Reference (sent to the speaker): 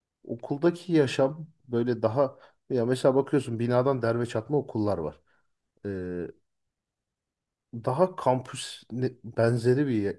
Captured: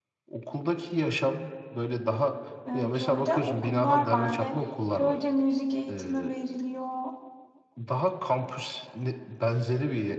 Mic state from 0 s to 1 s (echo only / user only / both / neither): echo only